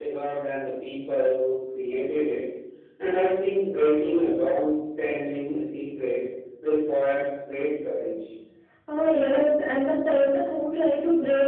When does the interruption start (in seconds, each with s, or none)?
none